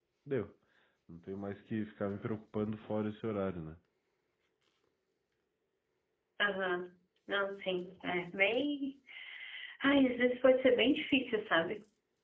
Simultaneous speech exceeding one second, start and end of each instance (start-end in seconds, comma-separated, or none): none